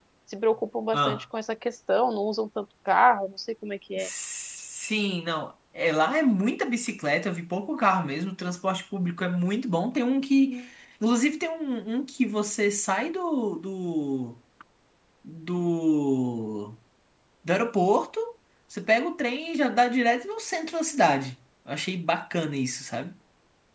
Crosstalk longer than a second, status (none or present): none